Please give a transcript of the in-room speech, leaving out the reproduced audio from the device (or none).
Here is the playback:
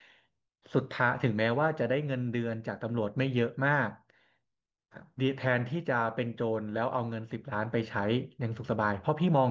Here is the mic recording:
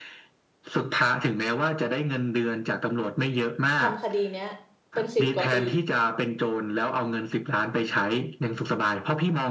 ทำคดีเนี้ยเป็นสิบกว่าปี